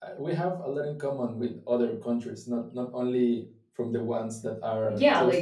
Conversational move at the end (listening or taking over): taking over